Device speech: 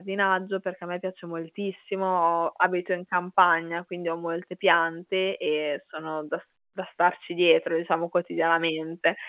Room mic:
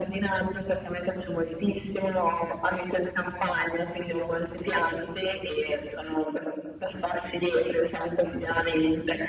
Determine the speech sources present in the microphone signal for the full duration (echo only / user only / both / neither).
echo only